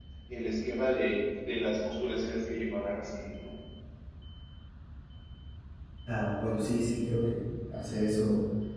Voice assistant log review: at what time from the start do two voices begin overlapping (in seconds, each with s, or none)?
none